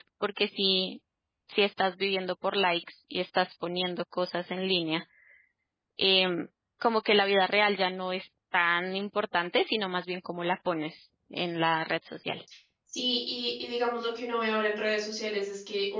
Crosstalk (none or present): none